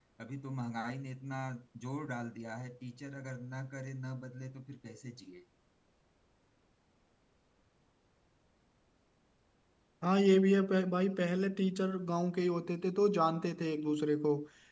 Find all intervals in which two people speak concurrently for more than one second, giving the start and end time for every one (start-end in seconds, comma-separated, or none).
none